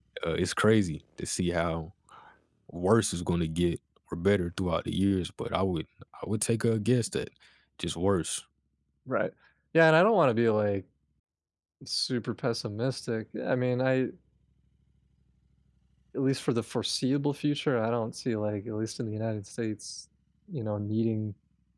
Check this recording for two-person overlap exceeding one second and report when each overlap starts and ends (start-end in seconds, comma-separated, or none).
none